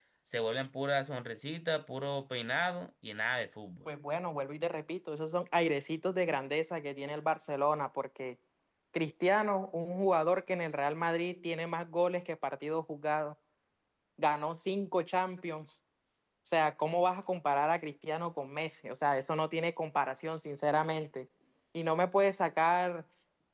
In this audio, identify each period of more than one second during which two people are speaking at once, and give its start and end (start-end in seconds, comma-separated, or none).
none